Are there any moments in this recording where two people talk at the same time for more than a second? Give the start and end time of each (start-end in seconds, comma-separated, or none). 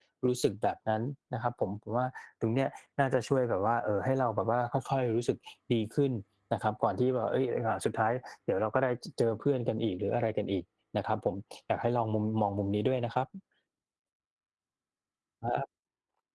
none